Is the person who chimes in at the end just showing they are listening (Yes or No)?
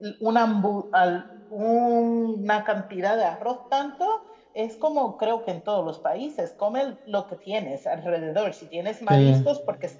Yes